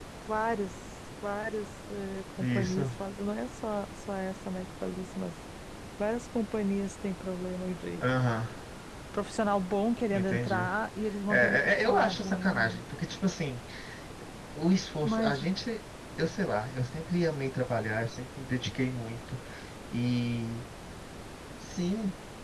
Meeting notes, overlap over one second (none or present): present